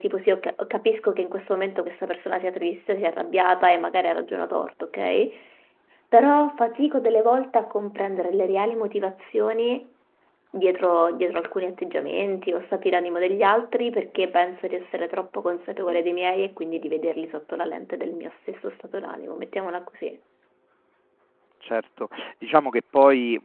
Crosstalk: none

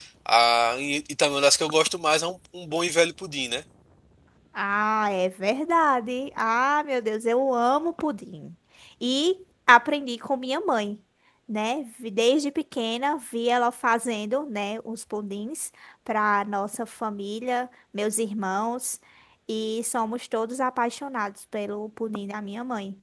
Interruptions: none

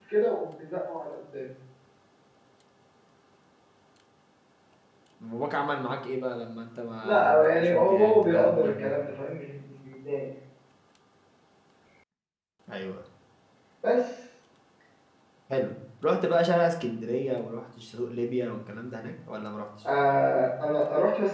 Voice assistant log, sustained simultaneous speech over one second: present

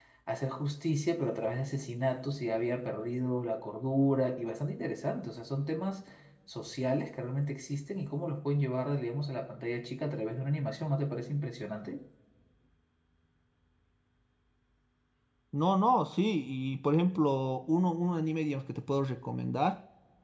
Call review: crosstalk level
none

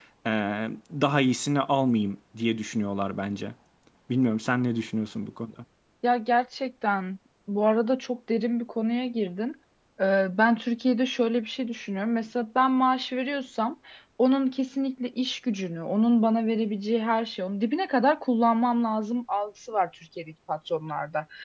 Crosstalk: none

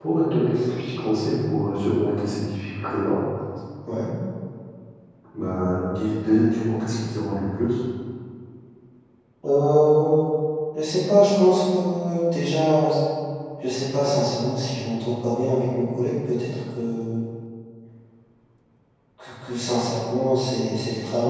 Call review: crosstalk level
none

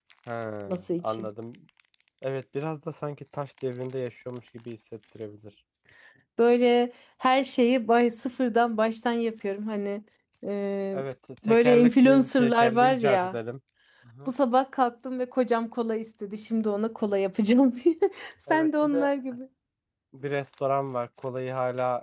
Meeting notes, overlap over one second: present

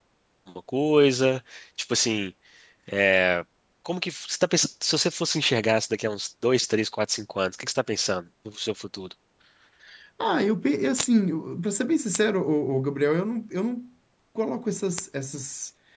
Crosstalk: none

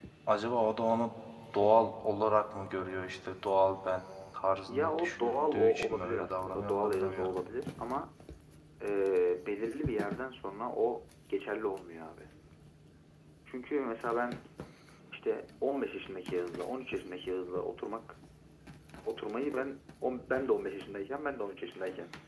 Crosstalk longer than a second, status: present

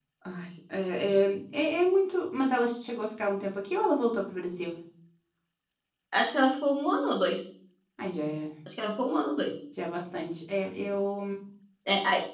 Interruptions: none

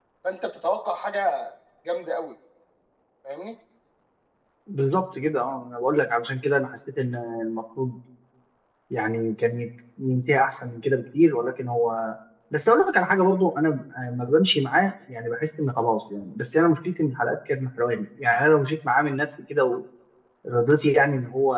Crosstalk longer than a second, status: none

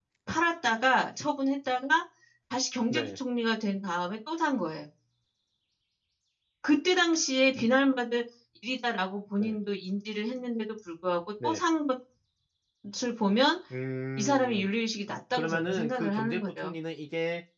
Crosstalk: present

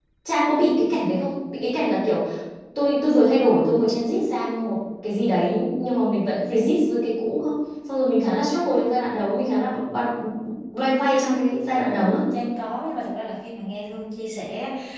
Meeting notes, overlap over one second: none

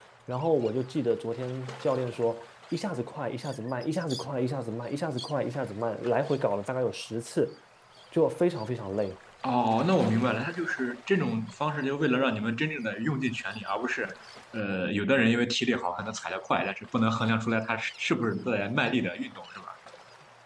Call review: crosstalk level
none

